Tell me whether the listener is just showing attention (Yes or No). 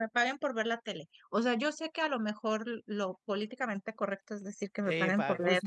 No